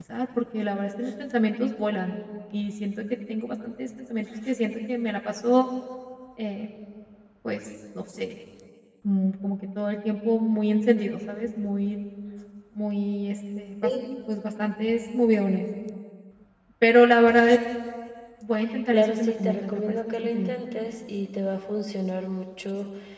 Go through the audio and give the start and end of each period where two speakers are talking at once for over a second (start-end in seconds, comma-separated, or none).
18.9-20.5